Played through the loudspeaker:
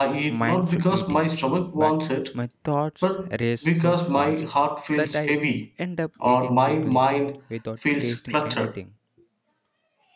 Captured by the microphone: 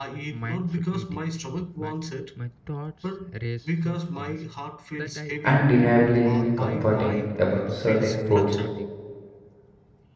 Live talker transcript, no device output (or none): undeniably comforting about certain foods.